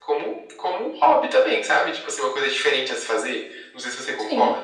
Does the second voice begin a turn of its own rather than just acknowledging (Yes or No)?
Yes